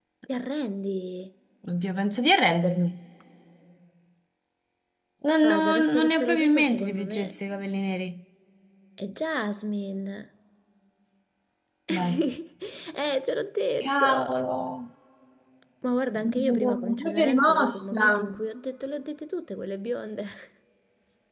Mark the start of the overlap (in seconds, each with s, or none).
5.4 s